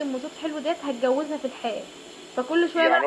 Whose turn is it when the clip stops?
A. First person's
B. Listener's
B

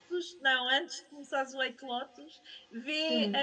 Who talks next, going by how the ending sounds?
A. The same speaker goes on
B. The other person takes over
A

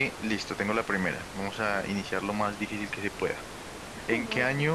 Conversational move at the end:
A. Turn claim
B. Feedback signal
B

